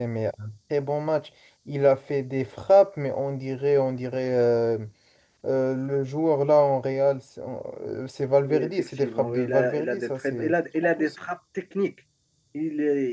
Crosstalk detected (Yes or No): Yes